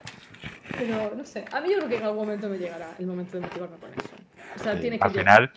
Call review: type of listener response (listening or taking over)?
taking over